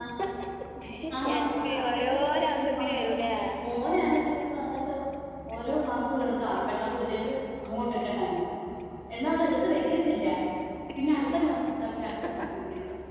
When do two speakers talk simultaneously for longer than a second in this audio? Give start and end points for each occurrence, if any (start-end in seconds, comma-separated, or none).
1.3-3.1